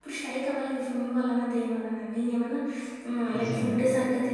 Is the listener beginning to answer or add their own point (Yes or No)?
No